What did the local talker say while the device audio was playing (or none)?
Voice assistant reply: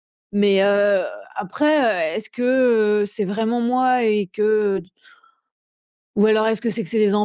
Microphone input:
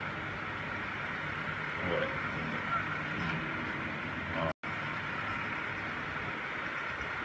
none